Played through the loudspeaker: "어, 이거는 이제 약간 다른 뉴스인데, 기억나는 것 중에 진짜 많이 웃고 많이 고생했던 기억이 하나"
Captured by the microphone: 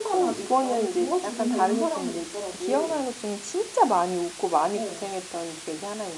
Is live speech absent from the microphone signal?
No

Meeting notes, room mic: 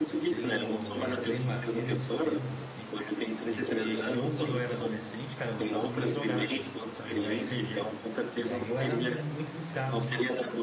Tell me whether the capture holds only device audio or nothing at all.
No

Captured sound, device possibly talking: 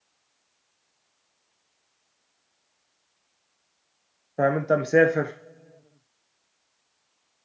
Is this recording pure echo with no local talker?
No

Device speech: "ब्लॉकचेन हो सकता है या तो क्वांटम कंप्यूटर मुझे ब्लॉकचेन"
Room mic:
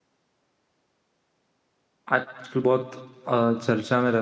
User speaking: Yes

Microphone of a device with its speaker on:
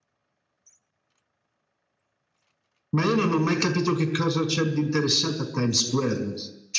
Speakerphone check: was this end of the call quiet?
Yes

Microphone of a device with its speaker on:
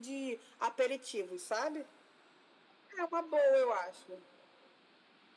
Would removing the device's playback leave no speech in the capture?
Yes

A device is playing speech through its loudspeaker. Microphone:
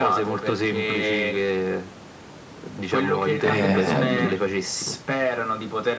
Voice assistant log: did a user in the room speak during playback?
Yes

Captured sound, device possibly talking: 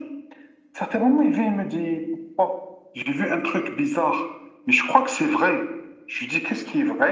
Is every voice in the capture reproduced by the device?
Yes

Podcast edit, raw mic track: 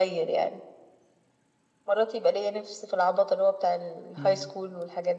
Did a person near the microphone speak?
Yes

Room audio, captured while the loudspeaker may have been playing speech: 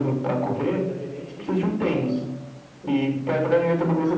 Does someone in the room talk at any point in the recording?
Yes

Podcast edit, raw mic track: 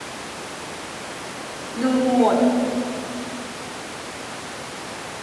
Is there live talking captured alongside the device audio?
Yes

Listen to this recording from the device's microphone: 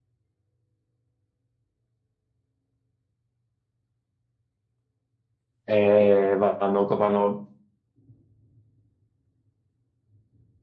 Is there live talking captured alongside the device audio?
Yes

